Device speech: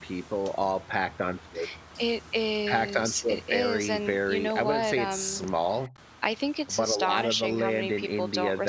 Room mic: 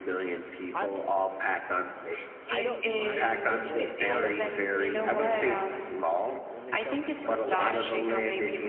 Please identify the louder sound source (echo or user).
echo